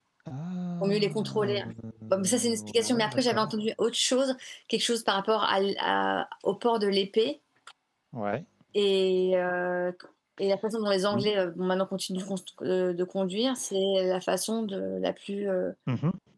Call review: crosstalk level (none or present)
present